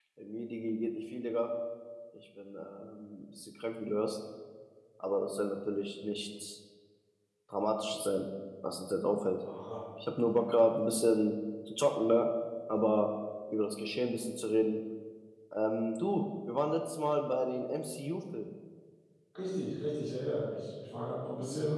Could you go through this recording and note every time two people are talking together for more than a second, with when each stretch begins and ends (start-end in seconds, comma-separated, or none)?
none